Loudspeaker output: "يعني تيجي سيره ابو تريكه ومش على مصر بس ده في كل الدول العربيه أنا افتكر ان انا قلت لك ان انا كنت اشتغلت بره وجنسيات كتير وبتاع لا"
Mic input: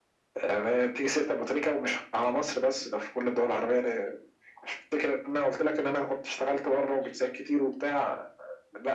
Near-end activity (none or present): none